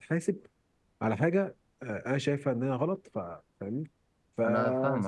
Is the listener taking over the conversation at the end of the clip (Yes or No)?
No